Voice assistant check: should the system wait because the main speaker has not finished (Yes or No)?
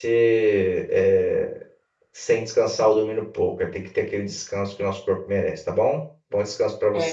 No